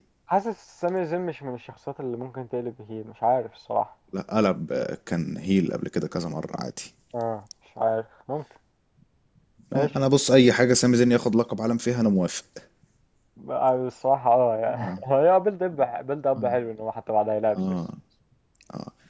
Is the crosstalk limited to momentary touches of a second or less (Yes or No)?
Yes